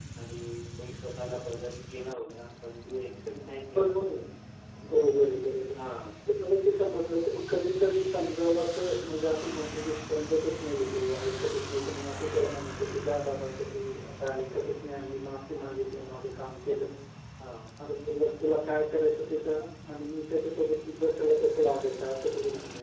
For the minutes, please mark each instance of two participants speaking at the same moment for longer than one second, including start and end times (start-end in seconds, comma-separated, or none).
none